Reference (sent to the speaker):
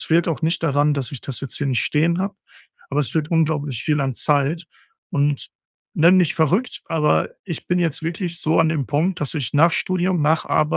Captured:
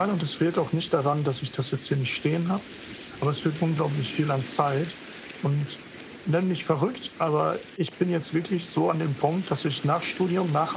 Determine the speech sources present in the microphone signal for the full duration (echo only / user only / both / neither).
echo only